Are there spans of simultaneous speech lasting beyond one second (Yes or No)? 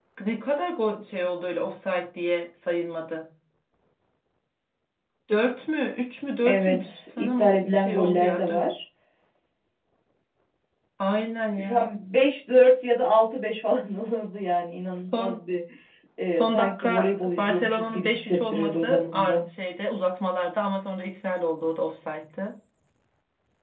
Yes